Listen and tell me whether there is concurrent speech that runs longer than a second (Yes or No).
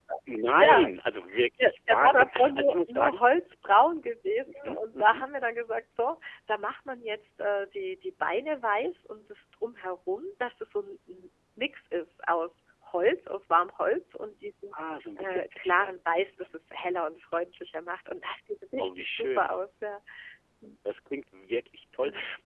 Yes